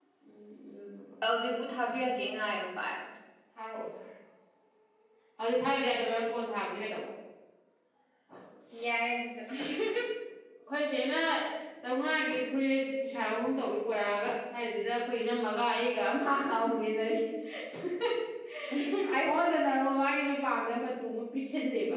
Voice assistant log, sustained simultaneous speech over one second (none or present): none